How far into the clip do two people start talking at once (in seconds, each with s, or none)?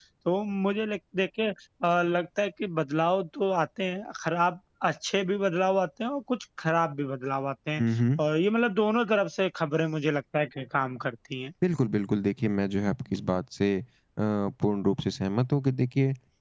none